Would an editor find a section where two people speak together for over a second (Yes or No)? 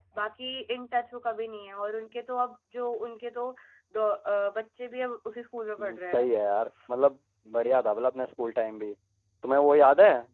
No